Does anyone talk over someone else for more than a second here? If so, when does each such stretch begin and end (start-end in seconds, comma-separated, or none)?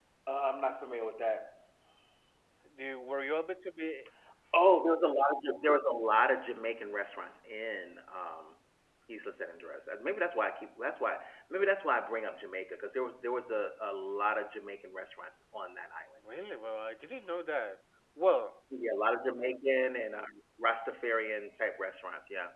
none